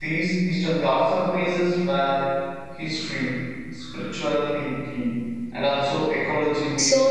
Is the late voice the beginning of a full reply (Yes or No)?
Yes